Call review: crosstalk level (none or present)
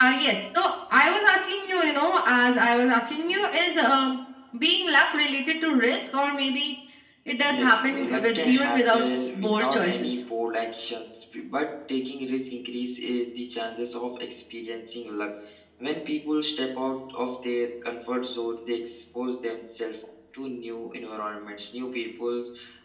present